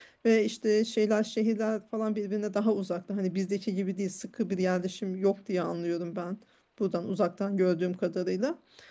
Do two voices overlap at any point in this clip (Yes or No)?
No